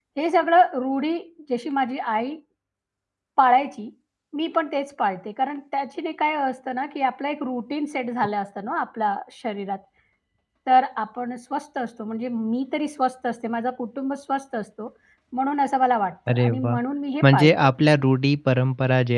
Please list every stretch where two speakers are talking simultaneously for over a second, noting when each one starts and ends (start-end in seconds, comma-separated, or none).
none